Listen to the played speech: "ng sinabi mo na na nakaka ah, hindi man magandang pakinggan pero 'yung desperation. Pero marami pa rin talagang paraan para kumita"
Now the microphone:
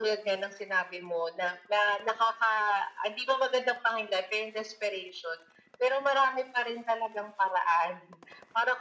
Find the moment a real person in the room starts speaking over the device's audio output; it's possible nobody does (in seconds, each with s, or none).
none